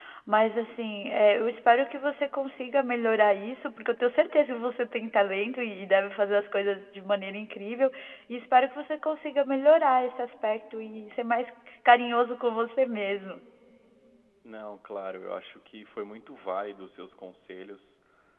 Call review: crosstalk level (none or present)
none